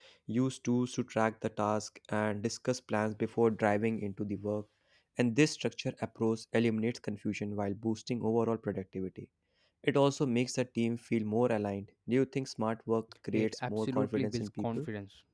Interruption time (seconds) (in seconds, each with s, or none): 13.3 s